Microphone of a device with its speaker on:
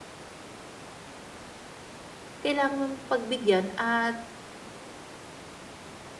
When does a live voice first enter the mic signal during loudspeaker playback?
2.4 s

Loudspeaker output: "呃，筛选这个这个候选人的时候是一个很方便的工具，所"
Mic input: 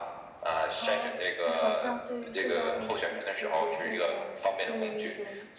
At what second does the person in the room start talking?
0.7 s

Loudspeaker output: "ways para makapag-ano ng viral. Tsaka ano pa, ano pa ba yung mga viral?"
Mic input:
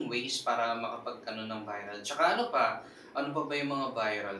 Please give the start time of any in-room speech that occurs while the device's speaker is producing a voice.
none

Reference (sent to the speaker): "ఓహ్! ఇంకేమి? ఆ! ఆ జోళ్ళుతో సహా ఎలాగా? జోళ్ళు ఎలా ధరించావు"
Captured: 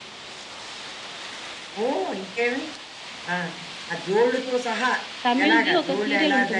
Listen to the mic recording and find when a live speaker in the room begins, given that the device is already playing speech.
5.3 s

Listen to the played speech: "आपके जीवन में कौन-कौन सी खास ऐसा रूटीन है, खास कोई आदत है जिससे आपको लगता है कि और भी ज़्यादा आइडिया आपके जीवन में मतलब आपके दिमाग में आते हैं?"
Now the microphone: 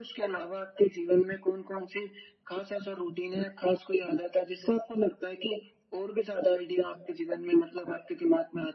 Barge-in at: none

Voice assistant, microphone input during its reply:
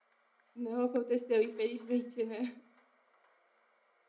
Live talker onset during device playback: 0.5 s

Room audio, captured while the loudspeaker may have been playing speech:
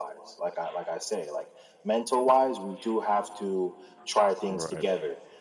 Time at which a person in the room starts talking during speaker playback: 4.5 s

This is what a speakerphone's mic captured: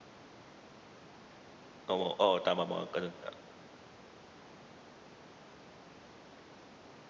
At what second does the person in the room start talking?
1.9 s

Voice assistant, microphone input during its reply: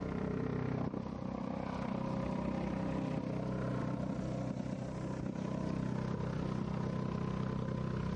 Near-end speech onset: none

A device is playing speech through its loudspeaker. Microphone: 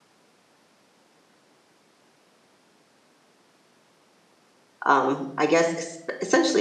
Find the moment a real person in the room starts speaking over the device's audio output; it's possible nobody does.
4.8 s

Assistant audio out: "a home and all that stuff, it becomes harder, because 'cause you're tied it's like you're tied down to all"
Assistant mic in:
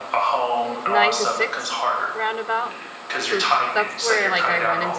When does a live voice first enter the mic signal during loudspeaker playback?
0.6 s

